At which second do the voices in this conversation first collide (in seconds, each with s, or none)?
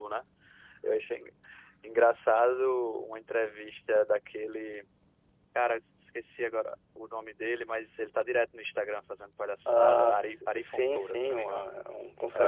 9.7 s